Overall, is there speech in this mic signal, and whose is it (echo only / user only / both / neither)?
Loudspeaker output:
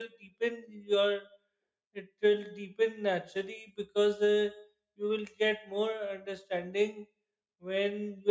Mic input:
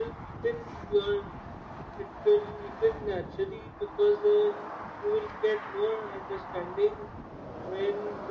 echo only